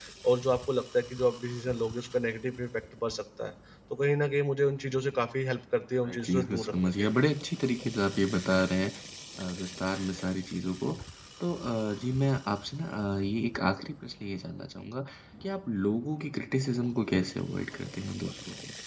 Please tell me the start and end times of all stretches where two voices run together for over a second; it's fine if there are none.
5.9-7.2

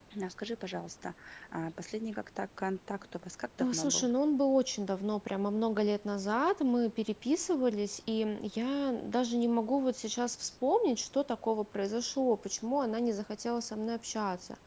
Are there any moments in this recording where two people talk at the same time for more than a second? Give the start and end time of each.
none

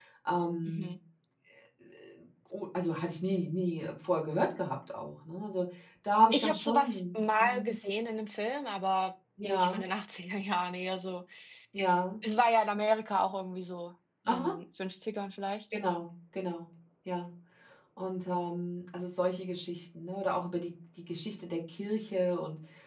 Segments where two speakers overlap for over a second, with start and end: 6.3-7.8

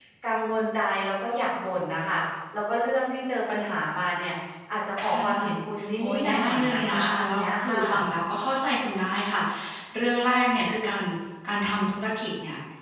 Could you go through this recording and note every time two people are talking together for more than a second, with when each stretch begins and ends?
6.0-8.1

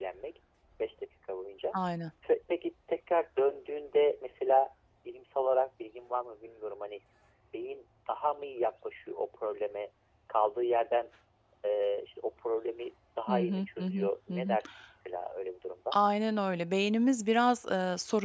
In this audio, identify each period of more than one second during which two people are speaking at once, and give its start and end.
13.3-14.6

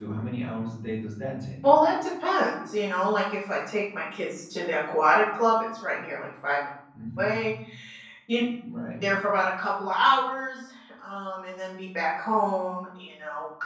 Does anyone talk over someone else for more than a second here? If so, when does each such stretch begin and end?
none

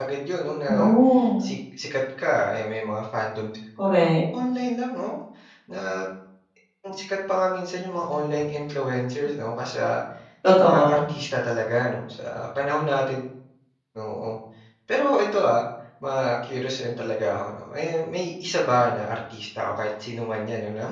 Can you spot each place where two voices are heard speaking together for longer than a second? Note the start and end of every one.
none

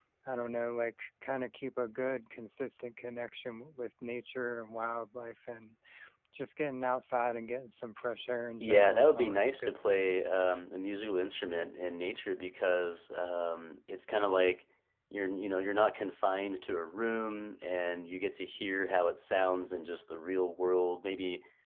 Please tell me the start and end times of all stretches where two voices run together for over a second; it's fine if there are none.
8.6-10.1

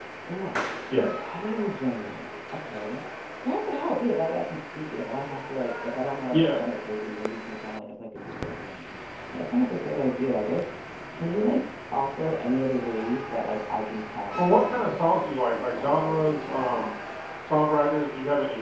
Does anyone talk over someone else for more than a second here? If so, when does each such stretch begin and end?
14.4-16.9

